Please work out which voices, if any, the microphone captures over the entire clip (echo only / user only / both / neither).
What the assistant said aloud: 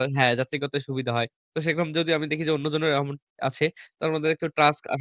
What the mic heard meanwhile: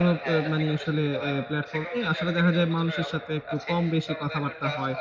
both